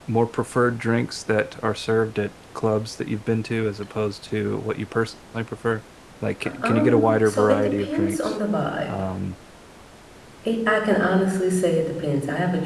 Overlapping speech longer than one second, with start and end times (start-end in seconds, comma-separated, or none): 6.4-8.3